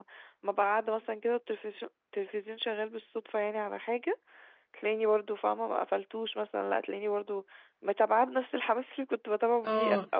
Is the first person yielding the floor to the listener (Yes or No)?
Yes